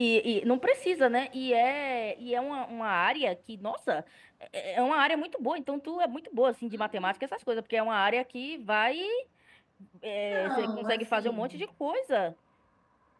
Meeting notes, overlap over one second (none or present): present